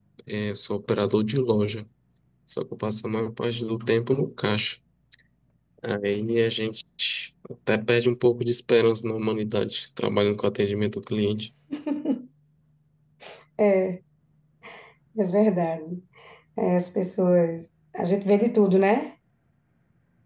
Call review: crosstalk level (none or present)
none